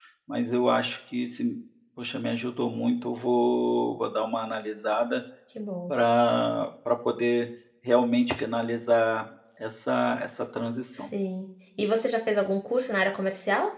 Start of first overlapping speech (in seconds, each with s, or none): none